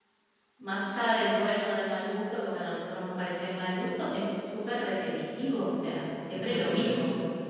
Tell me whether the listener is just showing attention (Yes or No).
No